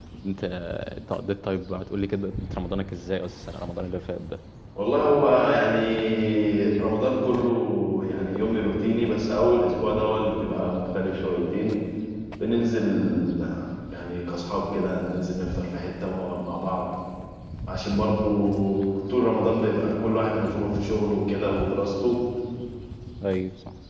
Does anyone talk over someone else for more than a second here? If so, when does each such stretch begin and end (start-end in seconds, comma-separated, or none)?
none